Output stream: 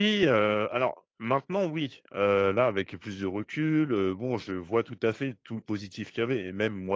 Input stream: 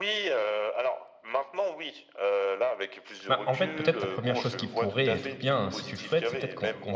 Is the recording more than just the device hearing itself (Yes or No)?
Yes